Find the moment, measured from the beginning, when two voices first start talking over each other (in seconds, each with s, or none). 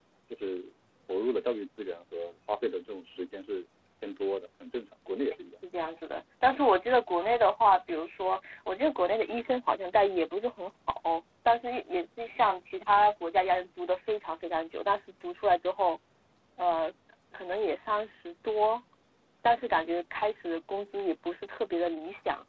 none